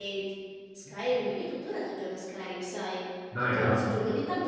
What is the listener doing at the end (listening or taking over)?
listening